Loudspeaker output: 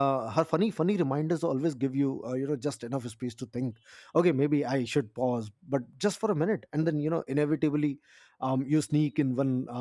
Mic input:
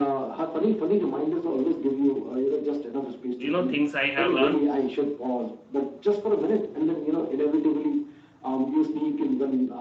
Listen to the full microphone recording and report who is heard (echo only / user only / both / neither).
both